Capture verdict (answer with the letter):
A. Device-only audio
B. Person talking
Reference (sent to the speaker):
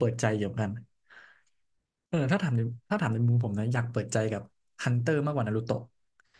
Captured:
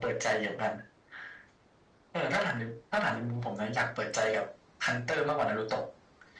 A